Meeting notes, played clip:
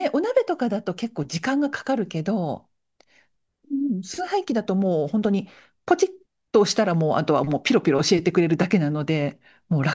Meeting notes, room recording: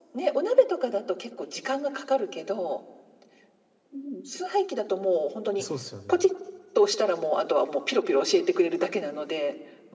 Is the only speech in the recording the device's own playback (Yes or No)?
No